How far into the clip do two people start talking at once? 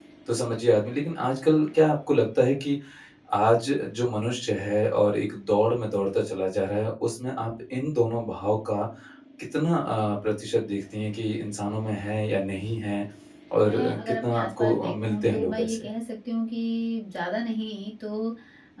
13.6 s

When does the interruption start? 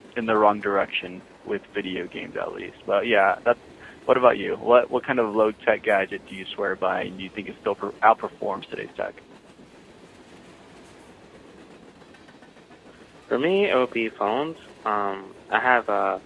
none

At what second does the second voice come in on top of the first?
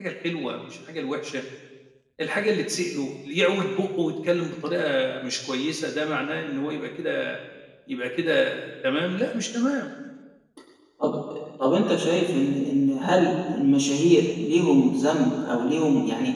none

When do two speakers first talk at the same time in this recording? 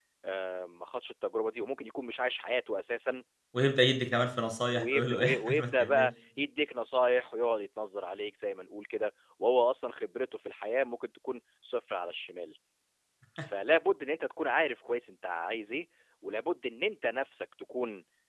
4.7 s

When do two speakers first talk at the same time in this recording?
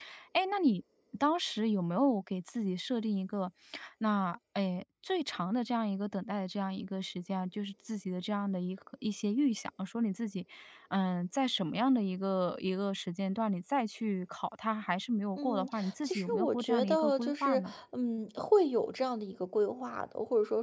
15.4 s

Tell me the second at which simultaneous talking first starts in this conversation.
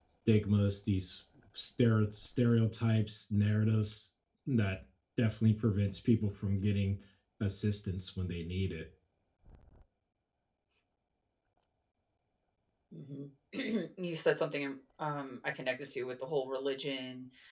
none

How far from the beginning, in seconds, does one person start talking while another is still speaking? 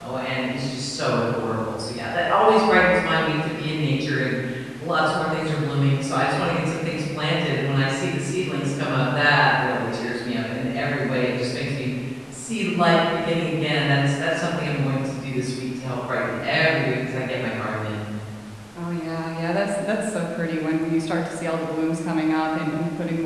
none

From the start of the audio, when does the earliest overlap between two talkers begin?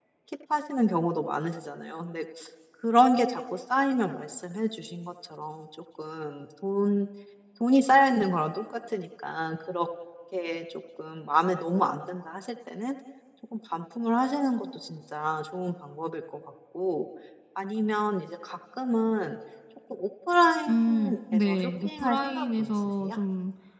20.7 s

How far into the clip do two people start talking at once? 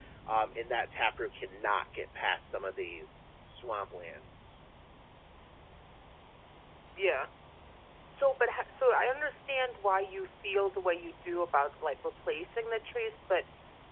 none

